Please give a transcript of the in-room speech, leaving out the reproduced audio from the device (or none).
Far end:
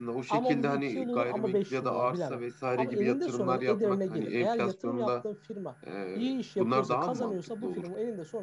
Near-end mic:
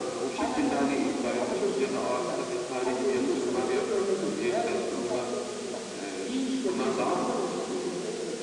none